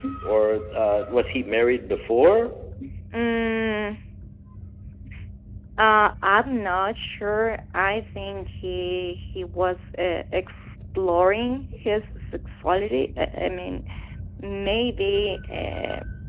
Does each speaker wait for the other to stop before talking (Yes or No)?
Yes